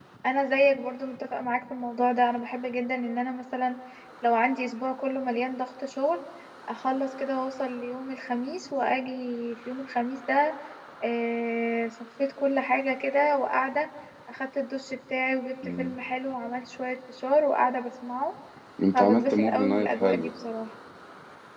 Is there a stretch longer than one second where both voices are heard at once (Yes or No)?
Yes